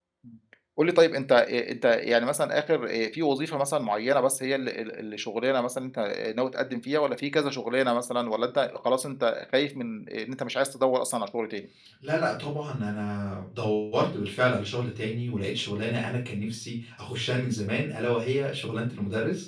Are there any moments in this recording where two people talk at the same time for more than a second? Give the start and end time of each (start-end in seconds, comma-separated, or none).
none